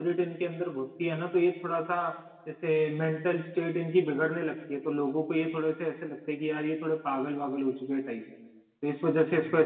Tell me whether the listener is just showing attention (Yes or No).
Yes